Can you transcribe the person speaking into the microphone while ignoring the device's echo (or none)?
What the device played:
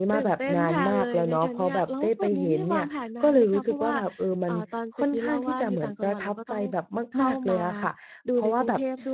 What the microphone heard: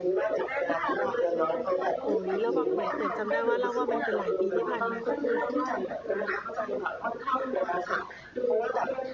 โอ้โฮ แล้วแบบเหมือน เหมือนจำได้ว่า เล่าว่ามันเป็นหลายปีที่ผ่านมา ก็คือ